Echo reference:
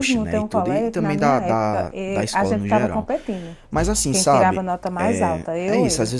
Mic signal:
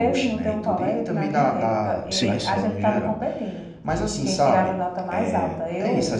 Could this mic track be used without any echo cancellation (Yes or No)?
No